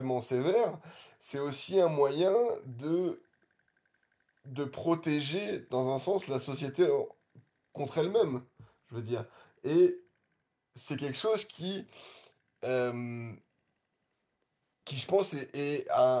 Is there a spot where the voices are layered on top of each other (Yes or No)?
No